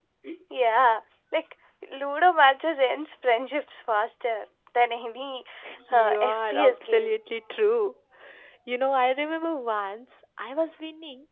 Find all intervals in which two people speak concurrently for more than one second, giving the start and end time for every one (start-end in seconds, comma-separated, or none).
5.9-7.2